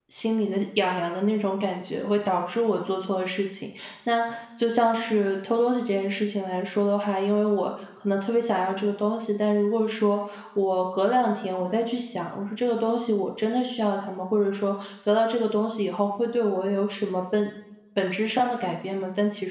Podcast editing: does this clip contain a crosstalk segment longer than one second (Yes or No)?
No